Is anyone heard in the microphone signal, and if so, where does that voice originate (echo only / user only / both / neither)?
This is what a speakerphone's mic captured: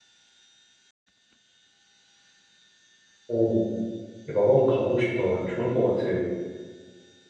user only